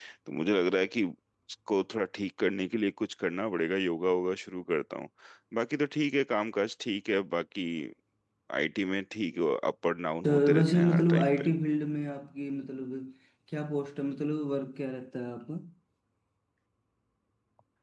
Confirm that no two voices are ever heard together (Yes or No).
No